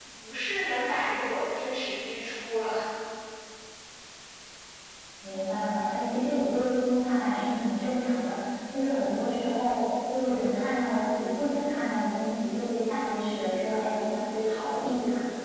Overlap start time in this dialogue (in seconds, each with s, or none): none